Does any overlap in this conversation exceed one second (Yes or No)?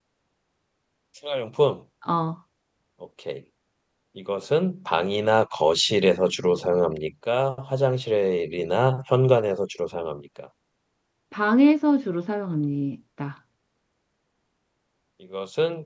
No